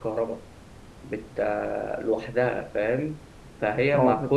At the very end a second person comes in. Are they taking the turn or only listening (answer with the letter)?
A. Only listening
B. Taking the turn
B